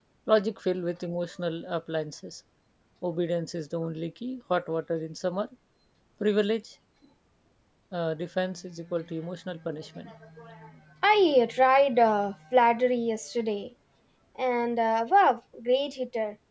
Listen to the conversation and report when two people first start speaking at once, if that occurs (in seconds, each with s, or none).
none